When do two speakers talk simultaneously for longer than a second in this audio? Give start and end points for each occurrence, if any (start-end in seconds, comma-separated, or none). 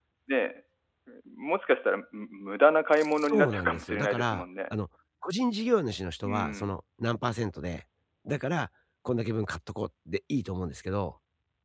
3.0-4.4